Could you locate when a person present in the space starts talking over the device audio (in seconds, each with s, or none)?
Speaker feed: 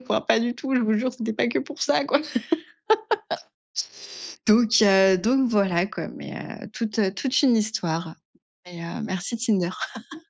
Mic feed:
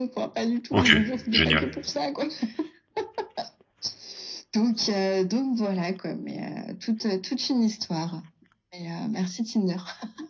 0.7 s